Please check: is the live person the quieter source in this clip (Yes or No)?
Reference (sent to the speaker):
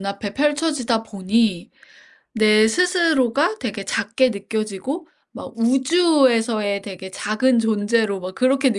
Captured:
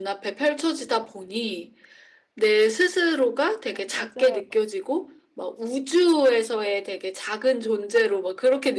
Yes